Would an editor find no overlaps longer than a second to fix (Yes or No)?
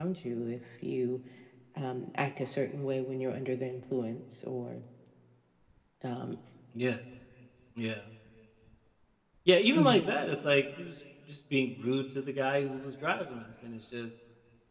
Yes